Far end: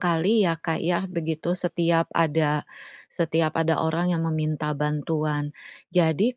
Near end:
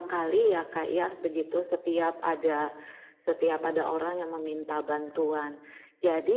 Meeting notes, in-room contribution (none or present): none